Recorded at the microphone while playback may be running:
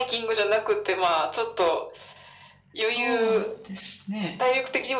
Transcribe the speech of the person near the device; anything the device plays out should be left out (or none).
そうですね。